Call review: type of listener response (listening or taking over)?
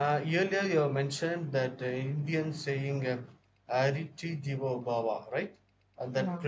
listening